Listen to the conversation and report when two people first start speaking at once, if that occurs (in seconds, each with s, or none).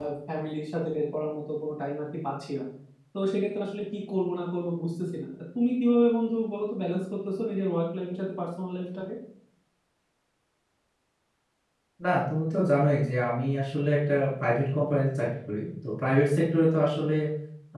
none